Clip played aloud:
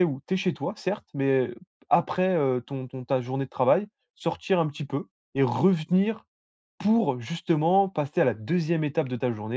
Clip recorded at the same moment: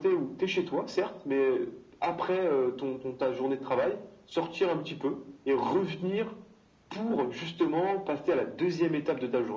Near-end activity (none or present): none